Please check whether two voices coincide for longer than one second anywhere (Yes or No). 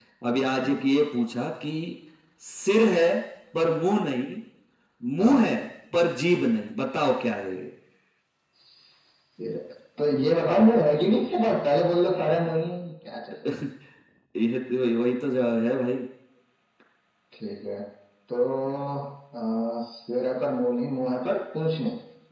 No